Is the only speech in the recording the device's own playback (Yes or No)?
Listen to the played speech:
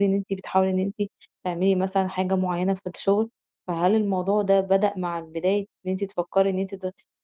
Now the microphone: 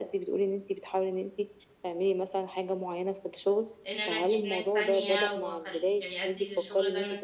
No